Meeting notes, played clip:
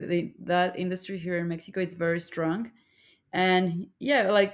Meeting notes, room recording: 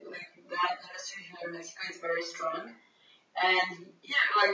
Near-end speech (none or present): none